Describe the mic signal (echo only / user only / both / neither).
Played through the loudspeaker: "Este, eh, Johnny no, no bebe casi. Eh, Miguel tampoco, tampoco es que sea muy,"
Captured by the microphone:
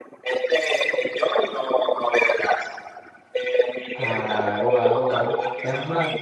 both